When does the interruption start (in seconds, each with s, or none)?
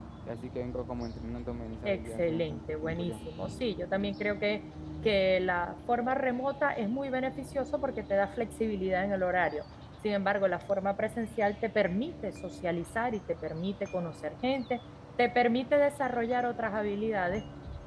1.8 s